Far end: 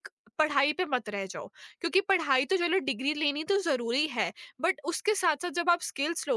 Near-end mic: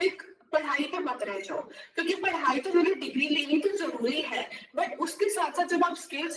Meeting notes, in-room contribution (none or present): none